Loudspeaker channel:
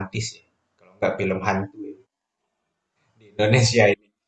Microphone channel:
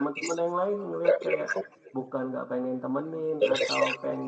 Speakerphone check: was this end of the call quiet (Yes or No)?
No